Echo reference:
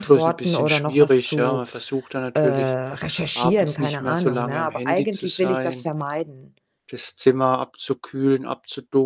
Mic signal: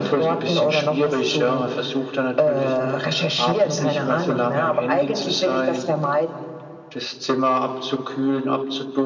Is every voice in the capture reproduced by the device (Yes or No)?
Yes